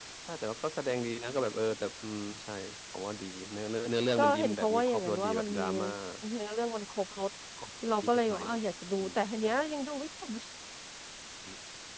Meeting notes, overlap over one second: present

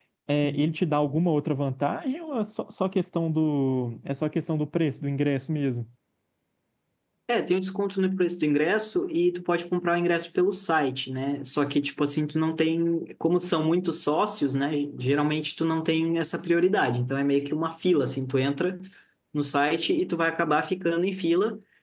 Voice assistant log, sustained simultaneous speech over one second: none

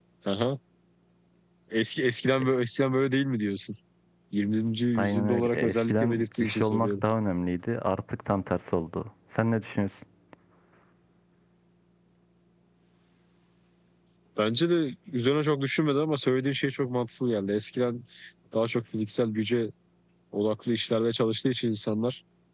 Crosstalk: present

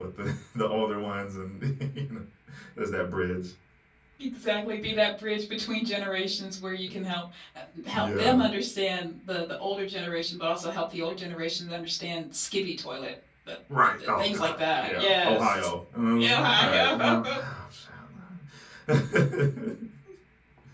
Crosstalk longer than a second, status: present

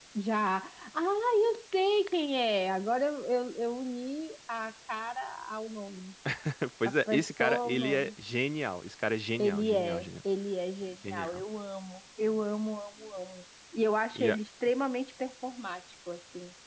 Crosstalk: present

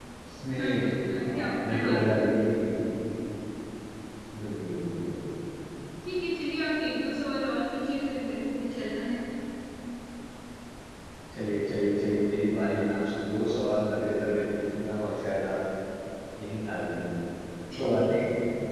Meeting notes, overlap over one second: present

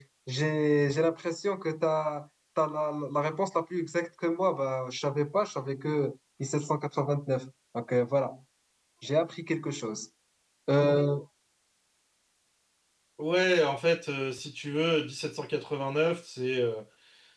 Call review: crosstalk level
none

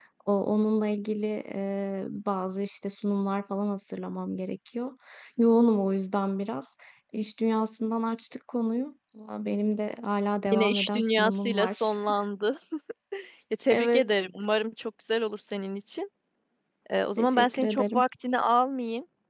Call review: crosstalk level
present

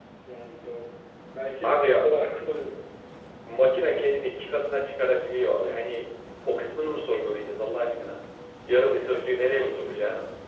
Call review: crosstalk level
present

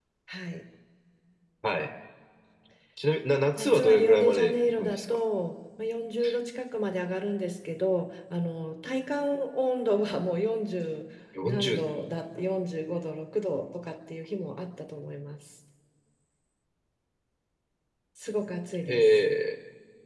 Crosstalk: present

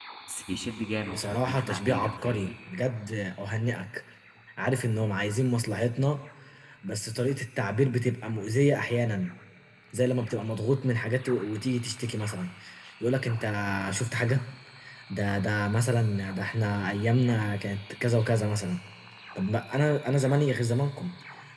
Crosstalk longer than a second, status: present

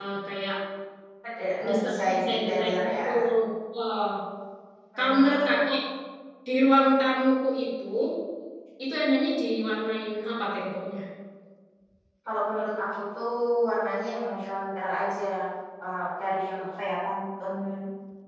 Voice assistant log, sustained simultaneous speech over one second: present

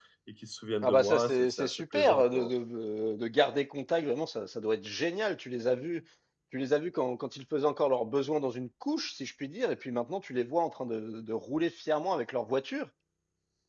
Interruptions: present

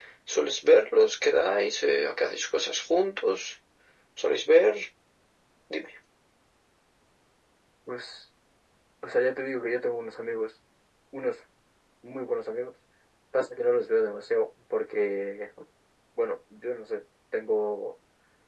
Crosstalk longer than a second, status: none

